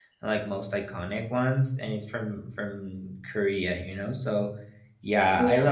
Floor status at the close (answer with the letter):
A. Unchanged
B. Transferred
A